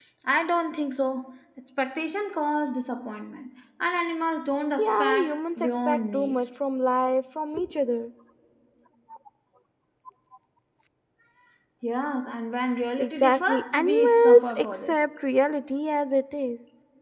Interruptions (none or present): present